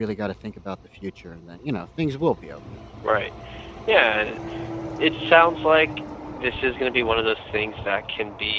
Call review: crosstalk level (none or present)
none